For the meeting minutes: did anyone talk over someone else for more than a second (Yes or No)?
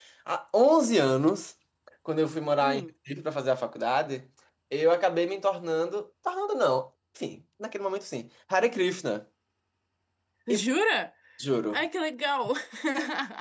No